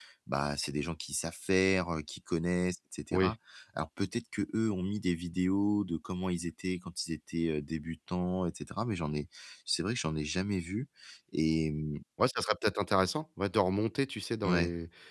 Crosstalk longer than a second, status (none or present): none